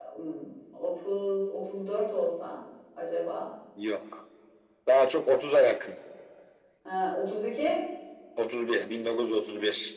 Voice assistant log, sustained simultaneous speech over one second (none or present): none